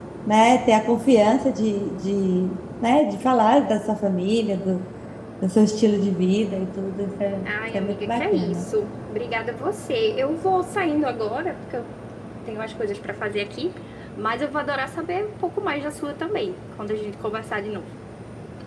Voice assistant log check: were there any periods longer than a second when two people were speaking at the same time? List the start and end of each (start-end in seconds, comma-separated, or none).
7.5-8.7